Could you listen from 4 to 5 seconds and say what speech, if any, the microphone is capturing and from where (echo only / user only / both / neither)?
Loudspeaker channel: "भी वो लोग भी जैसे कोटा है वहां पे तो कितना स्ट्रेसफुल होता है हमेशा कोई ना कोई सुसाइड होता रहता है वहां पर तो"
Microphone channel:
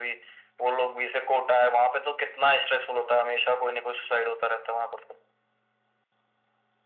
echo only